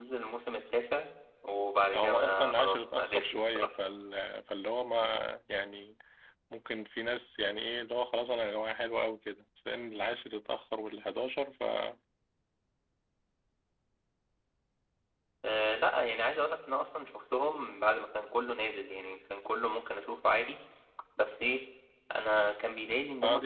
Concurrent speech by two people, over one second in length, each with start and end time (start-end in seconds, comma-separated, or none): 1.9-3.7